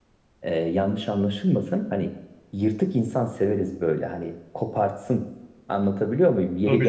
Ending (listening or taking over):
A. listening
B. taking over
A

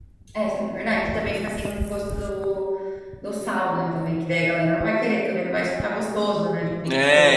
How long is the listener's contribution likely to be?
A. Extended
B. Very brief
A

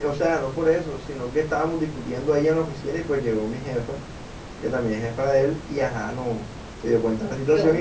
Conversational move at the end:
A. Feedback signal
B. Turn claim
A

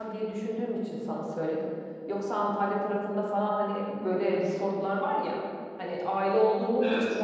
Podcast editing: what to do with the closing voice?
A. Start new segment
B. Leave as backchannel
B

